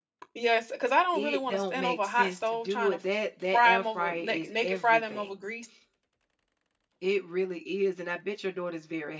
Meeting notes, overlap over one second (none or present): present